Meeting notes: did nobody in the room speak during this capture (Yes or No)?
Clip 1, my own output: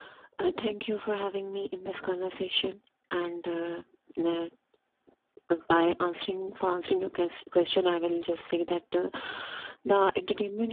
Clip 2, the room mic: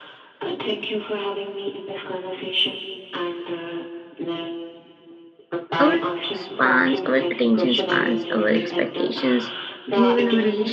No